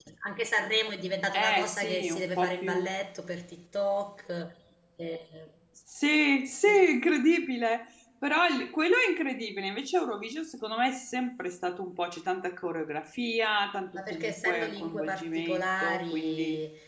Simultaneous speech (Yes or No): Yes